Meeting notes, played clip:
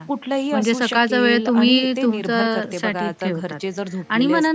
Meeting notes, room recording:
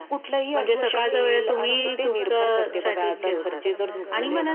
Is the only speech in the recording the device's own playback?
No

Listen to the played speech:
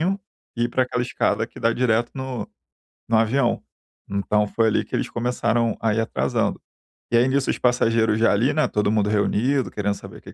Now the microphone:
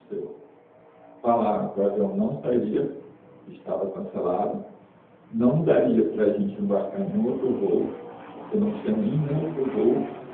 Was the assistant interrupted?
Yes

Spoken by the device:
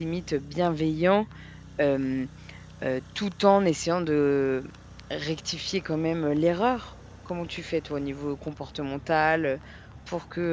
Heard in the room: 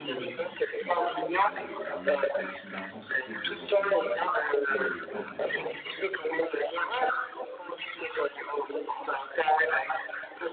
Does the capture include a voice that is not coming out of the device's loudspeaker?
Yes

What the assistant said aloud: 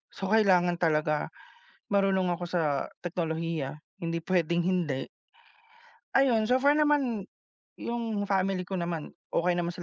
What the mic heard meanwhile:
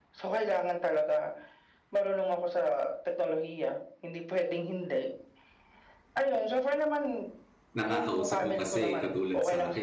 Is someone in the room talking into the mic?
Yes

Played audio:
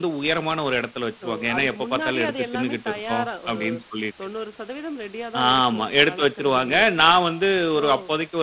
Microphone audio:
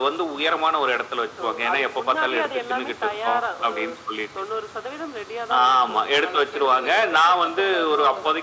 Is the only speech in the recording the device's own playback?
No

